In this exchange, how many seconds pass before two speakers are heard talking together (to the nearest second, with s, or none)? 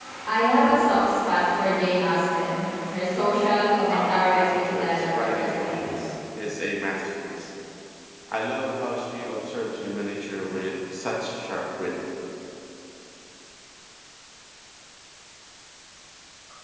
4 s